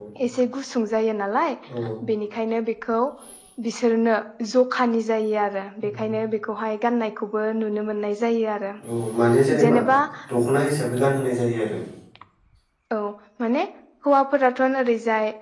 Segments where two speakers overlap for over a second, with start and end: none

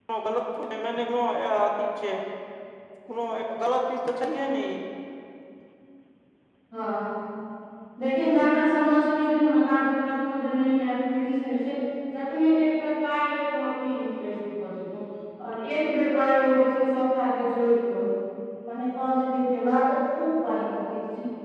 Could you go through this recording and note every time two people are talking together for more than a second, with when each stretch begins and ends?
none

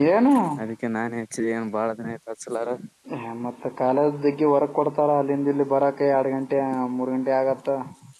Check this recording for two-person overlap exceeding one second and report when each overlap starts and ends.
none

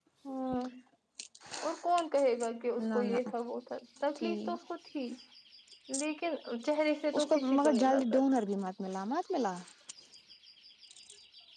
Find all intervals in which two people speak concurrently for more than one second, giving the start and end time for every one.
7.2-8.4

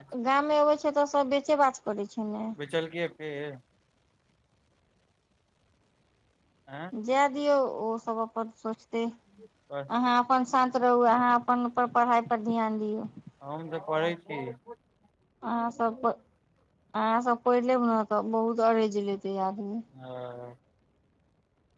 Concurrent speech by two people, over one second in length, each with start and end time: none

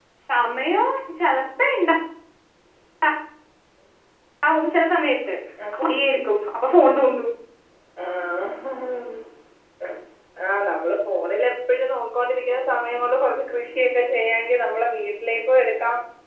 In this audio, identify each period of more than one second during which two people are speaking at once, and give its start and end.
none

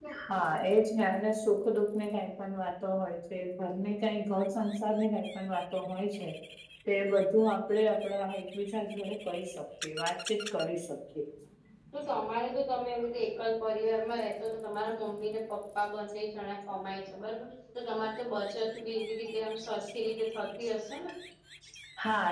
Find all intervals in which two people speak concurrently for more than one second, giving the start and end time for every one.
none

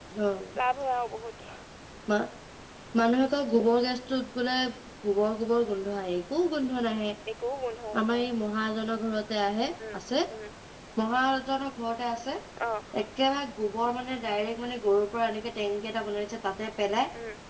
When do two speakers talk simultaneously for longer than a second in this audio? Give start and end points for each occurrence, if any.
none

